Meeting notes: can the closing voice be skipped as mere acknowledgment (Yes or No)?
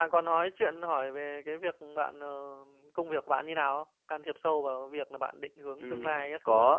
No